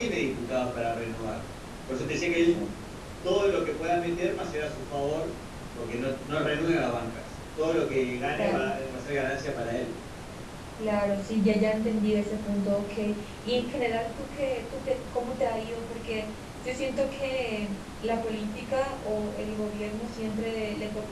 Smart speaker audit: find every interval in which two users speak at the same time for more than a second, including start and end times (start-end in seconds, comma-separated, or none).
none